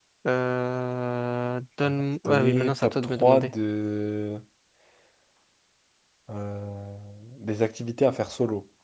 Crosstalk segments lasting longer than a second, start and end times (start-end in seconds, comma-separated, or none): 1.8-3.5